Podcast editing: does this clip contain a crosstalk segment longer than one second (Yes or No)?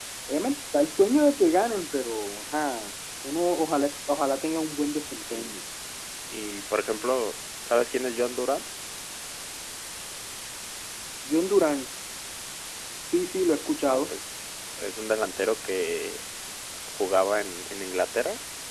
No